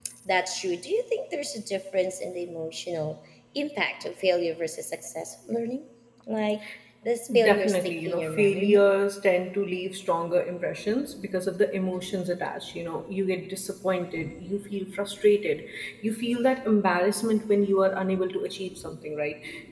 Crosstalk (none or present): present